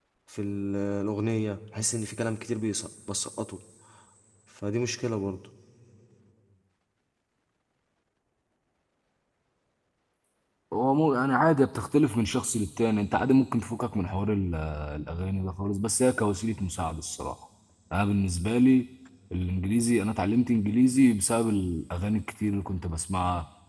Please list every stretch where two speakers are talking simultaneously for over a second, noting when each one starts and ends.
none

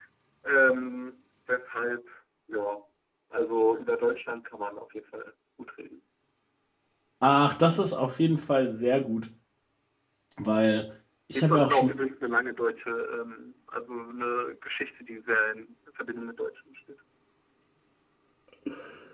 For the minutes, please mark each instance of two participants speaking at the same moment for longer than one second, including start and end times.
none

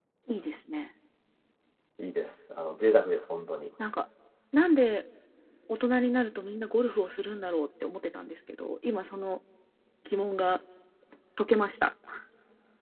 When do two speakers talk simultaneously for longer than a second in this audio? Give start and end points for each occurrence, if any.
none

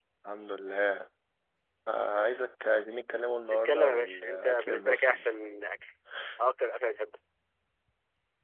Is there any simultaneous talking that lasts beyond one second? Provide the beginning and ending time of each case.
3.5-5.2

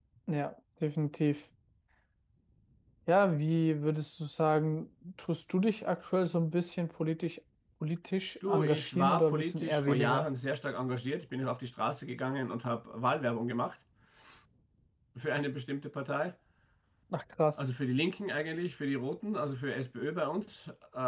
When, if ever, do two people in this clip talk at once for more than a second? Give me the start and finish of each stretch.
8.5-10.2

